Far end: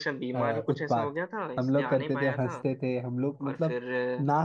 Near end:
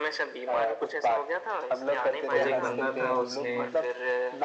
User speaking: Yes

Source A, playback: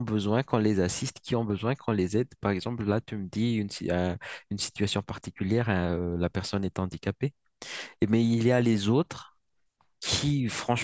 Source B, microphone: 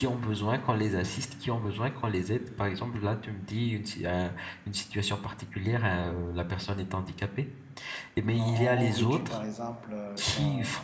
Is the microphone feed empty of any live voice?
No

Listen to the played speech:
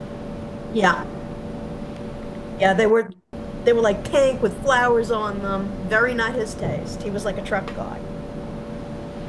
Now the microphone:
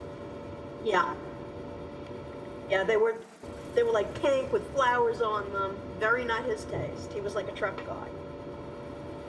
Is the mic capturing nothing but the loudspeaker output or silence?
Yes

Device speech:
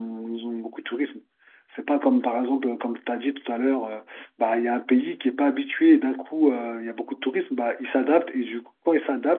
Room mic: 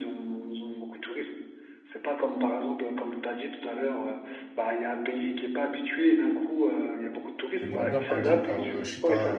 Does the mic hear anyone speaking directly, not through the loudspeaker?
Yes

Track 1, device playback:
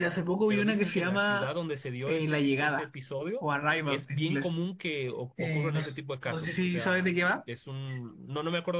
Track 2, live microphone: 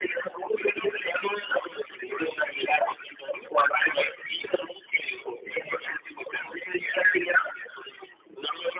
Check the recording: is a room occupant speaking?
No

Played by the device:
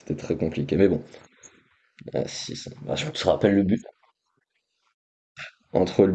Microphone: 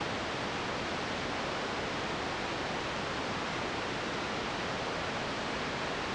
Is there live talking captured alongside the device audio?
No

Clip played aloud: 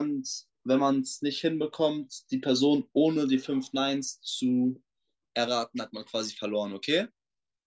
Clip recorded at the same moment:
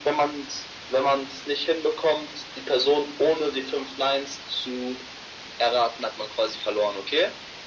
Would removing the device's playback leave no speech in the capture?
Yes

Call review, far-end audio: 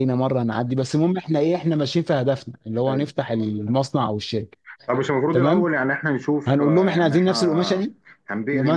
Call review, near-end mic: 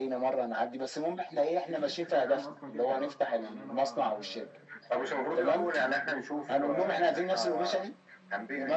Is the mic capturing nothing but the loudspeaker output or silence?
No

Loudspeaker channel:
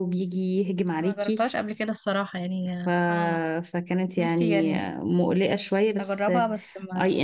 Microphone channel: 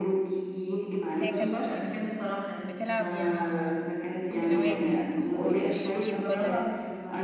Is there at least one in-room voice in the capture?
Yes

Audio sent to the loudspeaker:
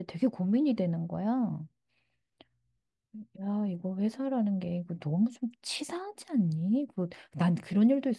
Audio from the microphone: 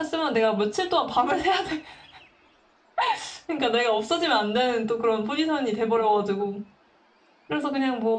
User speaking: Yes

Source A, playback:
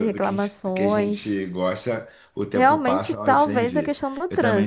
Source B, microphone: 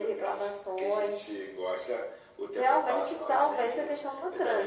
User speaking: No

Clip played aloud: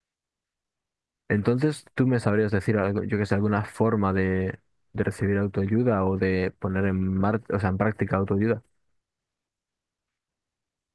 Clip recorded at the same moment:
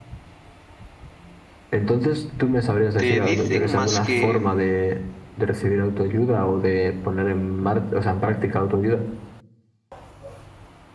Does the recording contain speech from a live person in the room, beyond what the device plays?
Yes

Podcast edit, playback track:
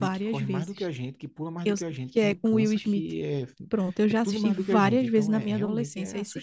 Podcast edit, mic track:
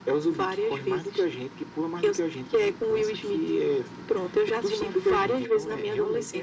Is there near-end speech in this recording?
No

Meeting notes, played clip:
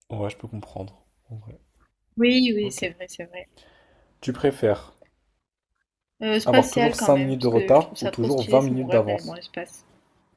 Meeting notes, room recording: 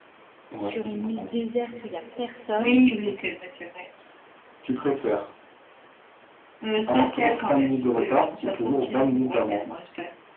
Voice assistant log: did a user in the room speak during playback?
Yes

